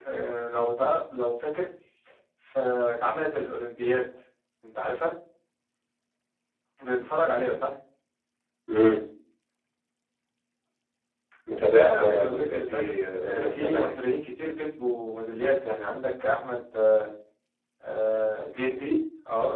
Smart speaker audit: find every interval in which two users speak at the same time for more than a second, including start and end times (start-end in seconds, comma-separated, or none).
11.7-13.9